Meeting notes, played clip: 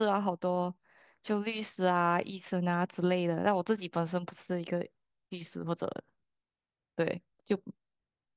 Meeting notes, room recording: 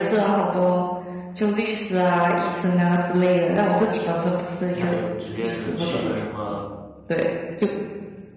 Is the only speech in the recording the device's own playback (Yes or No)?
No